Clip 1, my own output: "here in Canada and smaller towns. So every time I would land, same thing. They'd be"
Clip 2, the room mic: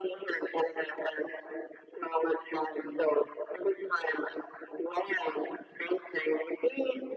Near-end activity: none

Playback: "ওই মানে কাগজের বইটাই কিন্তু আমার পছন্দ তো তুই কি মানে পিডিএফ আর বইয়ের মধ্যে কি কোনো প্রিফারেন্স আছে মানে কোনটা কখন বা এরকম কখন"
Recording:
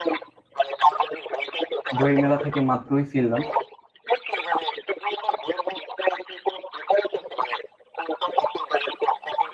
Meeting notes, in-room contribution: present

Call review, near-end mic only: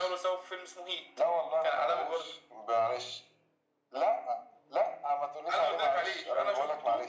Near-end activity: none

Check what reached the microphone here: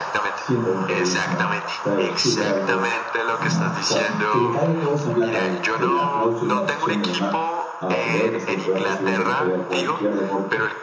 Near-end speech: present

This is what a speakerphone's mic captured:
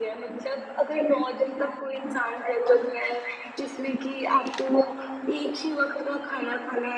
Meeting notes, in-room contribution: none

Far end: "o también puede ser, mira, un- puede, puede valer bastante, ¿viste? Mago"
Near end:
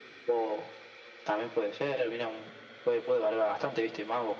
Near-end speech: none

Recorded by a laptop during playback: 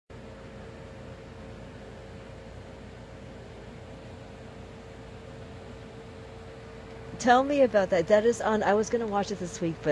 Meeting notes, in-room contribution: present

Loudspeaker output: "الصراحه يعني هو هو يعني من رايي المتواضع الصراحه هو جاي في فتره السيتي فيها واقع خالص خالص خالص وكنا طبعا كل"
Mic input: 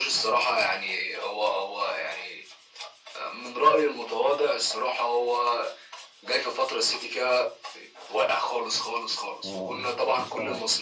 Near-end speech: present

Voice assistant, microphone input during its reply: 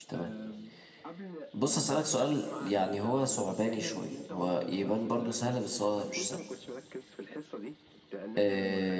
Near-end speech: present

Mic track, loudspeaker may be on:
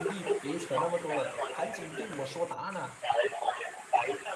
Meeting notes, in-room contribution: present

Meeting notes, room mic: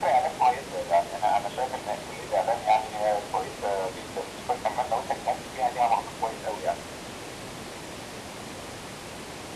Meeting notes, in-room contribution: none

